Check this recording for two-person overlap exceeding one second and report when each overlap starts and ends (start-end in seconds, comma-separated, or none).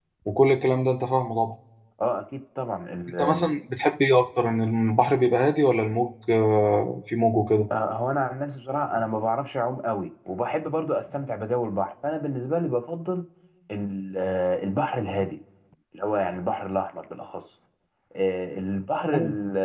none